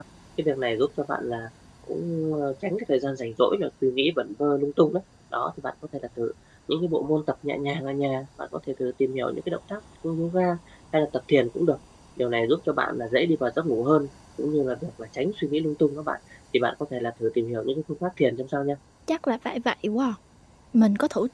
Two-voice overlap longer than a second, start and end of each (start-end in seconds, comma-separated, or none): none